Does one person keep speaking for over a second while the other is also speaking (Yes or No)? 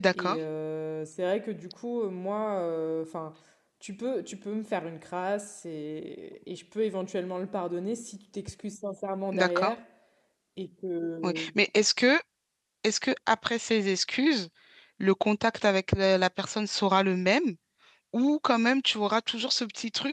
No